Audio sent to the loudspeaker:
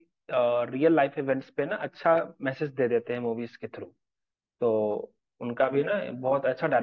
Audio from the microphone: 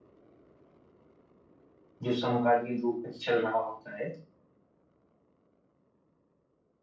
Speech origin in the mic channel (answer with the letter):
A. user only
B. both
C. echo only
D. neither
A